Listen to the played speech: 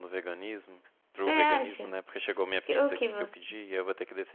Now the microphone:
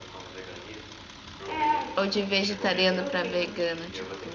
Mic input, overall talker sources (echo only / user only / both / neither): both